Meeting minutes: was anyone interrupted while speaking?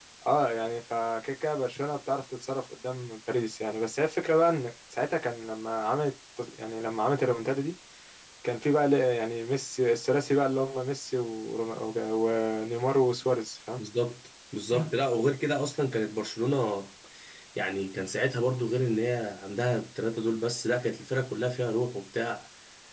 No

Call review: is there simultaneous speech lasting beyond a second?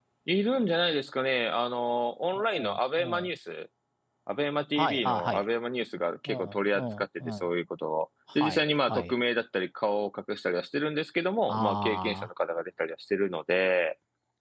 Yes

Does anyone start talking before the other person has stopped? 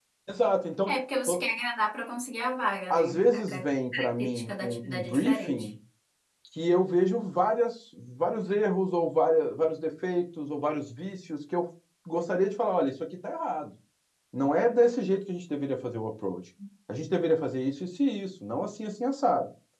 Yes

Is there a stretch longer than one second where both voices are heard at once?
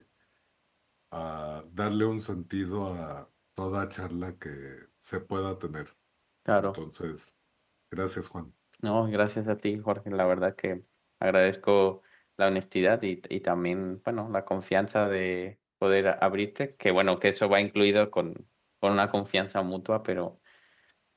No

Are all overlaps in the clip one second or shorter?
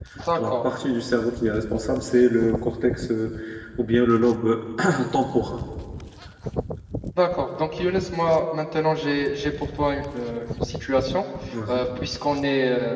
Yes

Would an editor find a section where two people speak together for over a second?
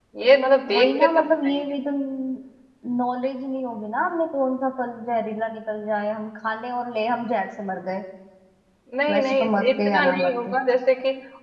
Yes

